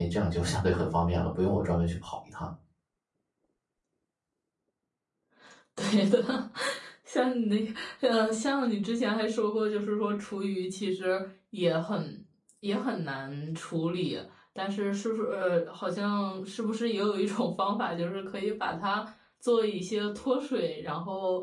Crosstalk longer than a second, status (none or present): none